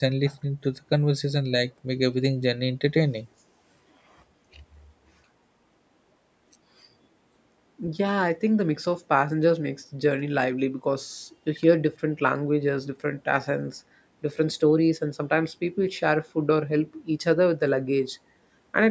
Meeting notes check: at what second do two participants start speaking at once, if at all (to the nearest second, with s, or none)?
none